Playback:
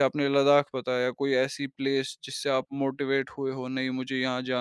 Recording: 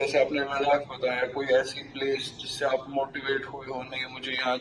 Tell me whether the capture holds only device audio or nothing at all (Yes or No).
Yes